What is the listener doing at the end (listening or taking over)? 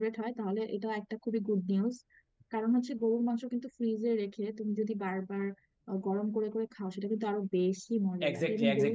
taking over